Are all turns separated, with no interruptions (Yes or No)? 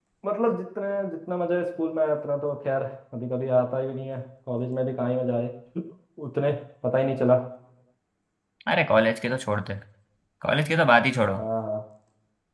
Yes